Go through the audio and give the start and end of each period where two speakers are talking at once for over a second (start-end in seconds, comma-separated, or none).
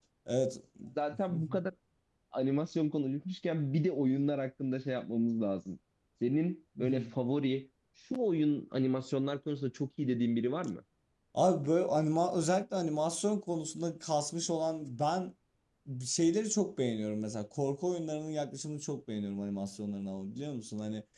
none